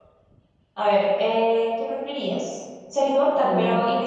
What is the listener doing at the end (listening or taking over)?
listening